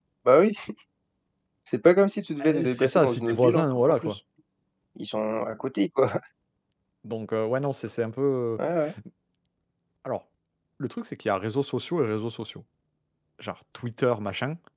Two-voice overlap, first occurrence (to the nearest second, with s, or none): 2 s